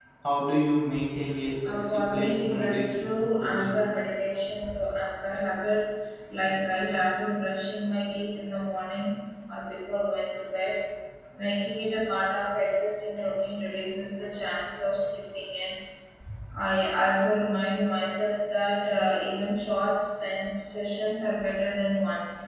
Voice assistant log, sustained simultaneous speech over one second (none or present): present